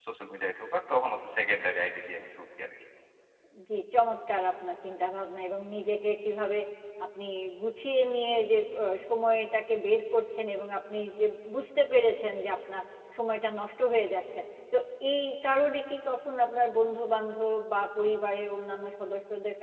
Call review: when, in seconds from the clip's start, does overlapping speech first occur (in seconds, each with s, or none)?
none